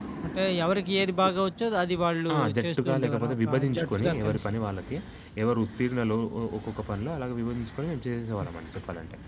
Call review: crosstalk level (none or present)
present